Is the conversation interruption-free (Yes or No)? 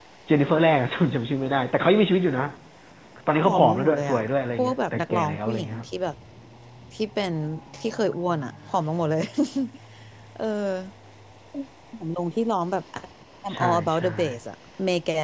No